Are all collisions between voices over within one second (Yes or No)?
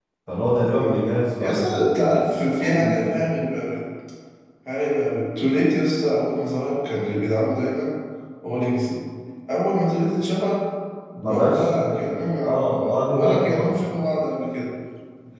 No